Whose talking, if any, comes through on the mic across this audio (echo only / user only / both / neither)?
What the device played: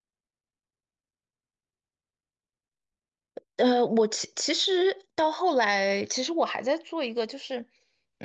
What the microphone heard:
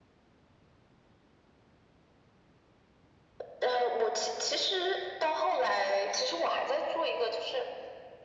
echo only